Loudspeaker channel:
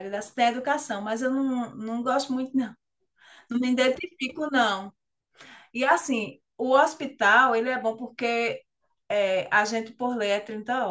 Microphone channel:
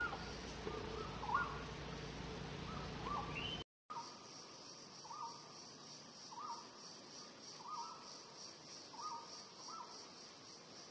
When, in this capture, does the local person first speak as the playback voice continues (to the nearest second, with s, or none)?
none